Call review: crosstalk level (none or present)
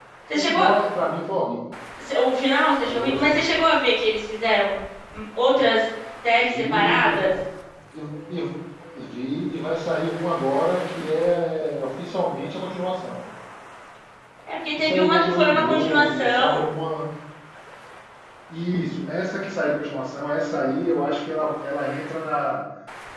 present